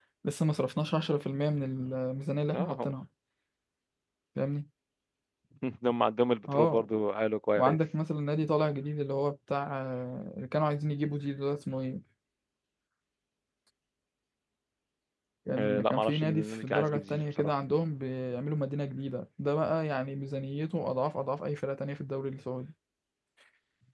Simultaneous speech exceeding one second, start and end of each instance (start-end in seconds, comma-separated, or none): 15.6-17.5